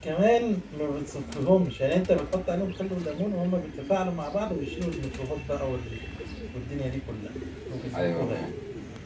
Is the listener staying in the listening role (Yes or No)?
No